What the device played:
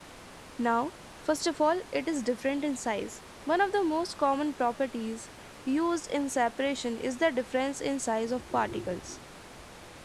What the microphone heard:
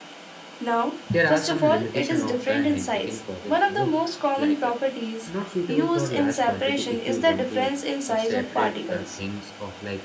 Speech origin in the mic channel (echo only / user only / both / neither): both